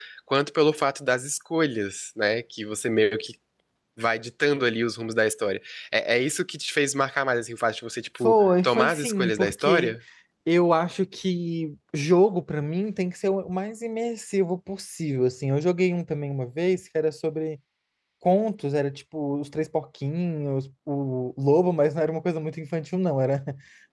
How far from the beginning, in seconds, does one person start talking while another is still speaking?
8.2 s

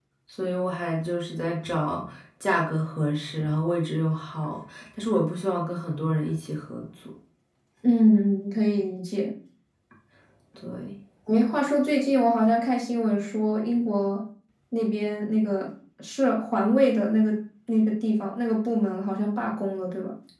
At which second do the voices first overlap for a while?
none

